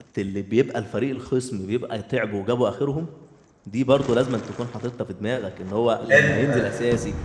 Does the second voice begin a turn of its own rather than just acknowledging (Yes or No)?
No